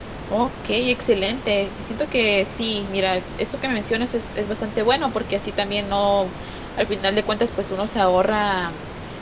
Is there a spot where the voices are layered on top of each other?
No

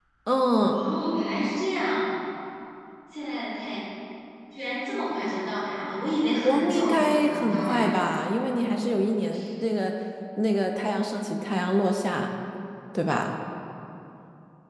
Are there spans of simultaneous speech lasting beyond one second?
Yes, from 6.4 s

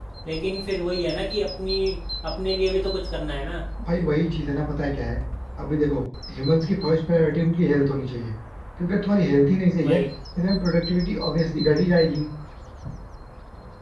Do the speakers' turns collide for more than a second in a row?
No

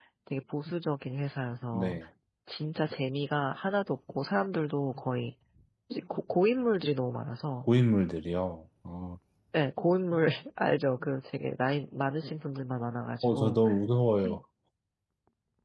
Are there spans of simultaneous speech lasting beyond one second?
No

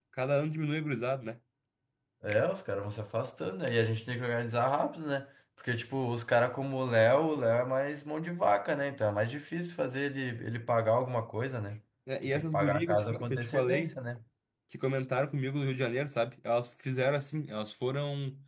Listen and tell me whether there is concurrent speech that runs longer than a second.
Yes, from 12.2 s

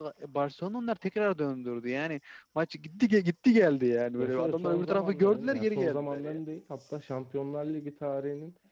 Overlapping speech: Yes, from 4.2 s

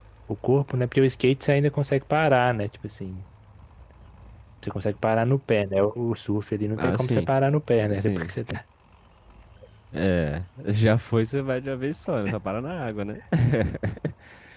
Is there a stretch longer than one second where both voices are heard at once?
No

